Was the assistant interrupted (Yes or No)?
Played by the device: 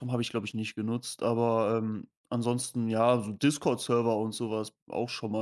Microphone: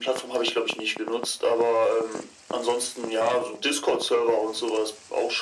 No